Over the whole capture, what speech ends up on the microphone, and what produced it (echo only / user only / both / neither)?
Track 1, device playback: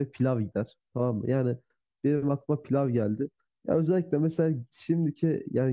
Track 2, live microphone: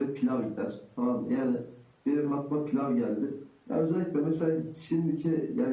echo only